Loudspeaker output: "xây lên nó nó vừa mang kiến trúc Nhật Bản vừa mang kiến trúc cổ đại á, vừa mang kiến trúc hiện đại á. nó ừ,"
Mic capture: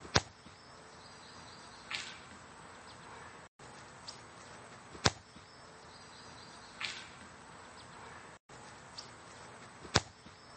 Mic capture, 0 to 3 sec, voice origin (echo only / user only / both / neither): neither